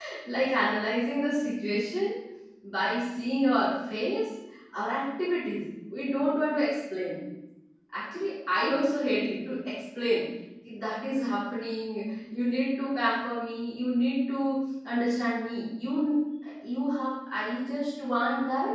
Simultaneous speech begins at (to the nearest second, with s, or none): none